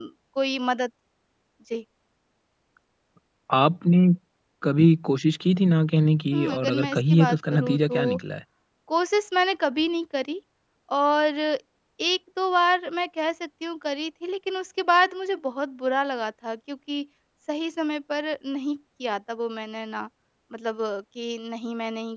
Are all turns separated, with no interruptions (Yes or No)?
No